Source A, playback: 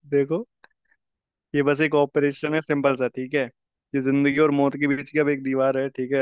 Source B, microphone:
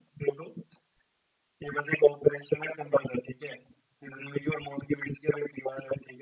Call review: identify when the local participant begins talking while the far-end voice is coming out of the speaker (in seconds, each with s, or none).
none